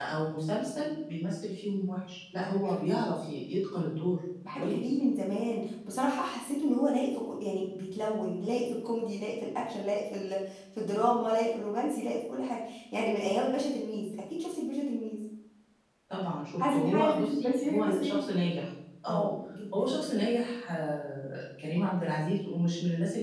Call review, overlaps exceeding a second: present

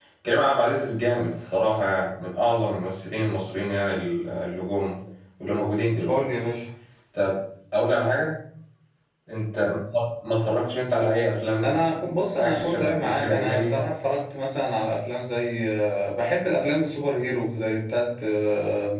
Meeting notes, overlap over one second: present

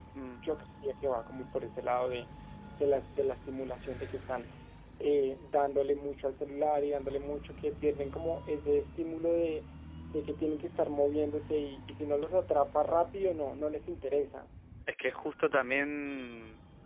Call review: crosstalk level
none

